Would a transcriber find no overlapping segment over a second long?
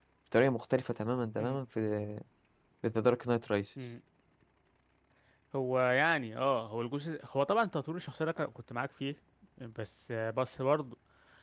Yes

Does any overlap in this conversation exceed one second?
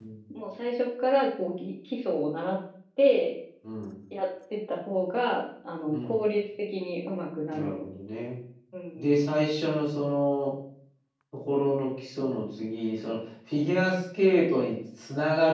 No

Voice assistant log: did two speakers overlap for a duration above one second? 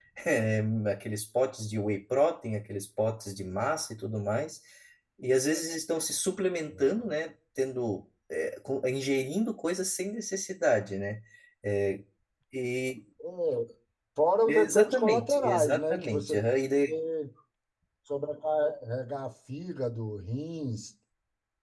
Yes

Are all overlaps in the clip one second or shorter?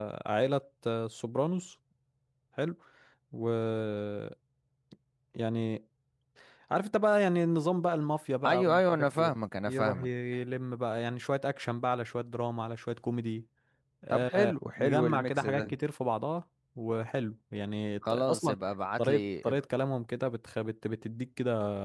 No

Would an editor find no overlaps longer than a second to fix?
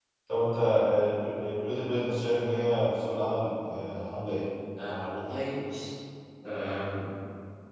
Yes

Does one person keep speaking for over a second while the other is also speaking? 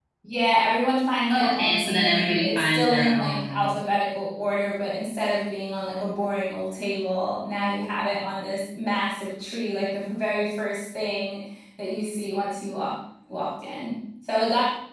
Yes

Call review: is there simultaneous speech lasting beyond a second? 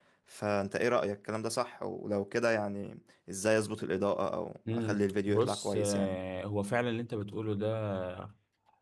Yes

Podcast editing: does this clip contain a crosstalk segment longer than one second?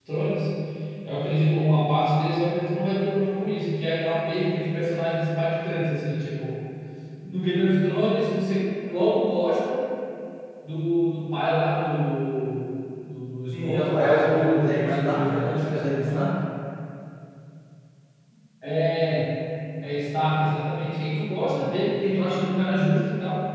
Yes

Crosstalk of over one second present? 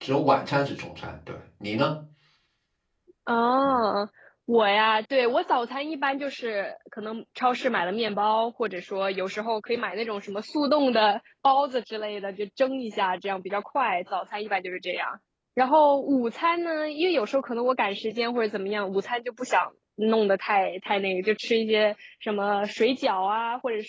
No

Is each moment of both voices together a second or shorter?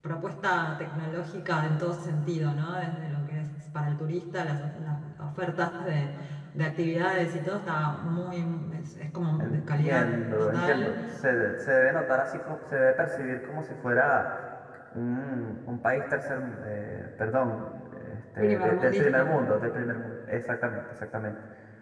No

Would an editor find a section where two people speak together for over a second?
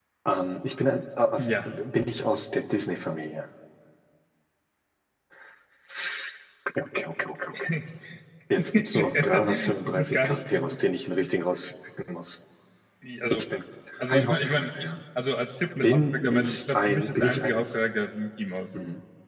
Yes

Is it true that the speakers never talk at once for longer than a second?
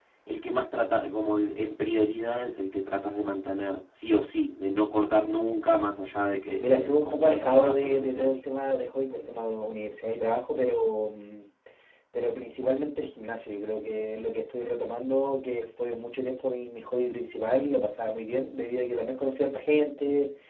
No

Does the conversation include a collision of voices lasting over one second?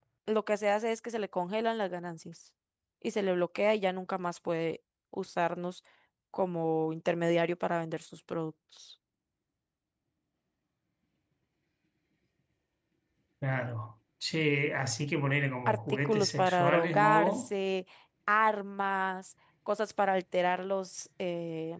Yes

